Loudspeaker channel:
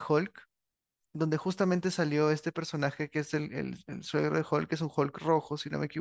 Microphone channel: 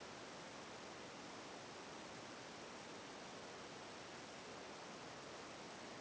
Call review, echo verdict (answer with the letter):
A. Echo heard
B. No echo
B